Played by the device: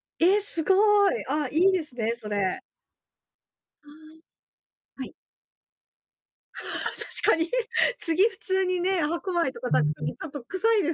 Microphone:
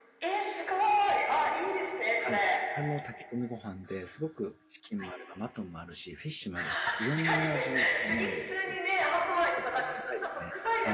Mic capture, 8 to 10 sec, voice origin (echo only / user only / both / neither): both